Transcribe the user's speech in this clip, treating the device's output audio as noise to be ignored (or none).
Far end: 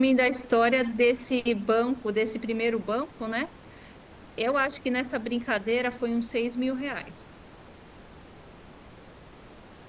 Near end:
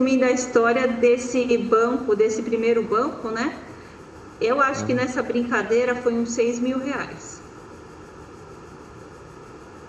é mano?